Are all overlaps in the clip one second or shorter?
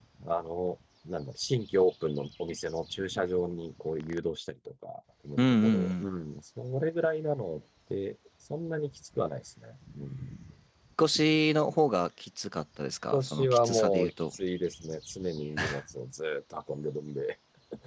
No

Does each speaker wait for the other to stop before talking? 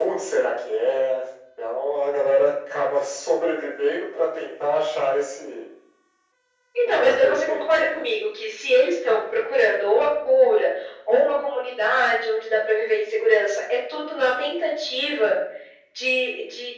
No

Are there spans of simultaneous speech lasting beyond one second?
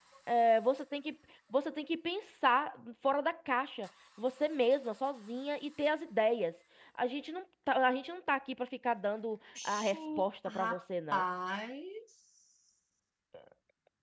Yes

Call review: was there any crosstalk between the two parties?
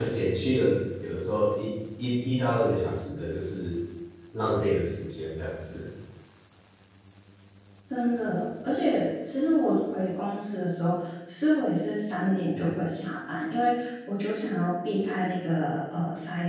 No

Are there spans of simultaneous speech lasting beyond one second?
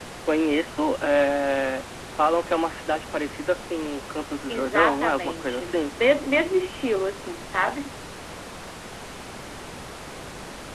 Yes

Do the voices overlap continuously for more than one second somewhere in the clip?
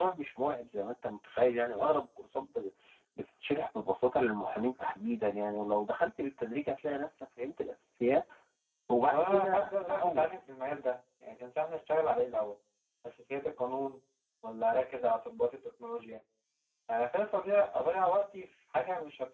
Yes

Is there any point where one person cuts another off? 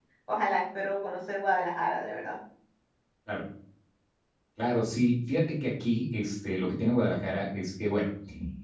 No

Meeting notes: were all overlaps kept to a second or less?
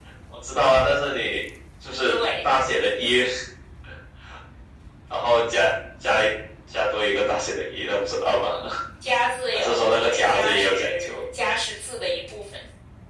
No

